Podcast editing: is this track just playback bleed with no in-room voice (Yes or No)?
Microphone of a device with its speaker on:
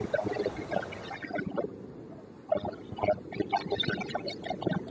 Yes